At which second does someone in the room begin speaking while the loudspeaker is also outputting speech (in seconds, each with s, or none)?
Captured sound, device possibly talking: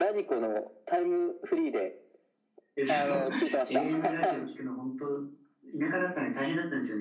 2.7 s